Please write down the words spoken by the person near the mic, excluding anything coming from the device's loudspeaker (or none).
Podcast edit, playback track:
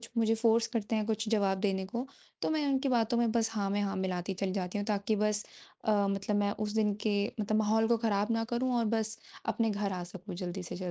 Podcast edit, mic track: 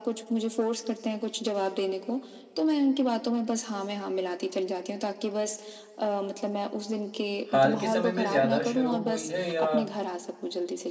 हाल के समय में ज़्यादा शुरू हुई है या